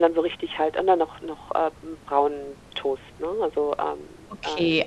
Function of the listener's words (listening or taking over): taking over